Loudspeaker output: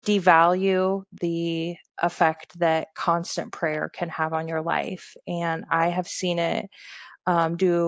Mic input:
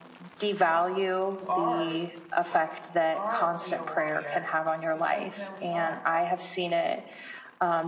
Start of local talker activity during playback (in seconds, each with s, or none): 1.2 s